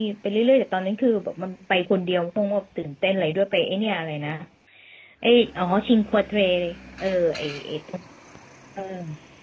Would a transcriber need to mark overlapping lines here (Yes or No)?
No